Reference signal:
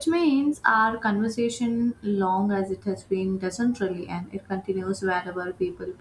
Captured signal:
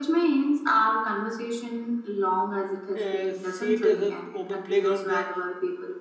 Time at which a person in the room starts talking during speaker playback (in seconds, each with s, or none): 3.0 s